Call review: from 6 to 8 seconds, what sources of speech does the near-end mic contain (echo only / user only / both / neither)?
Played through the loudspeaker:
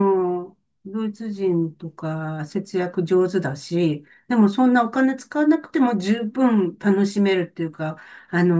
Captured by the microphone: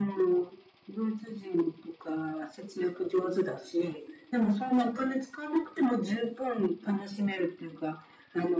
echo only